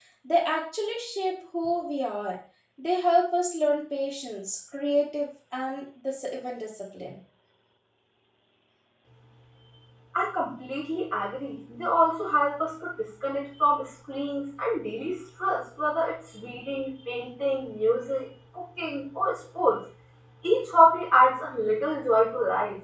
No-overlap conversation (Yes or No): Yes